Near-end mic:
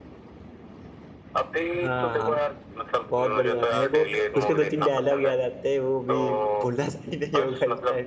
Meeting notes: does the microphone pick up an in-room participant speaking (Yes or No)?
Yes